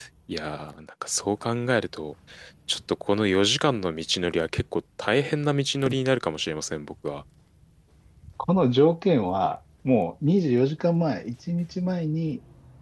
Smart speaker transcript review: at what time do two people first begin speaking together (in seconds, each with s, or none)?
none